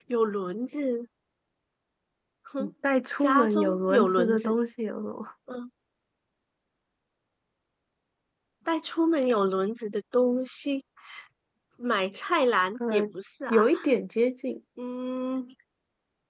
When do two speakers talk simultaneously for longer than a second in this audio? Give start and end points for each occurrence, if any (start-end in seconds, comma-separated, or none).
3.2-4.5